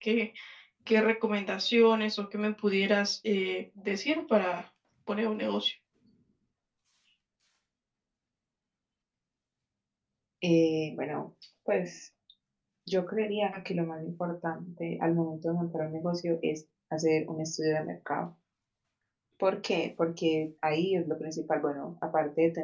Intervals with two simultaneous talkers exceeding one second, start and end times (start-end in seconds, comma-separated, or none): none